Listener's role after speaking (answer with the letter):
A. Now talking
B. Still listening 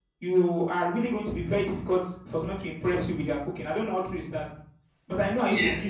A